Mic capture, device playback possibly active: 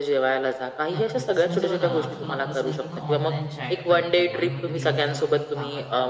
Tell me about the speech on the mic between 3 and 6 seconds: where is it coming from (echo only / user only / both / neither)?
both